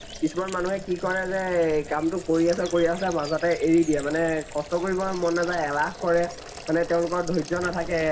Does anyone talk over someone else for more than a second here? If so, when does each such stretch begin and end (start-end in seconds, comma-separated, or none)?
none